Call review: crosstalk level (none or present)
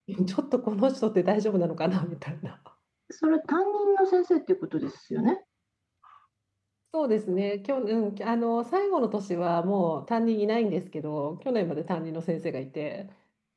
none